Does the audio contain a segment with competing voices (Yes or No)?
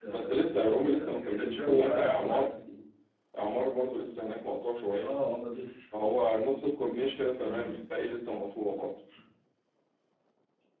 Yes